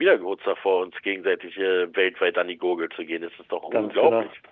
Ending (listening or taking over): taking over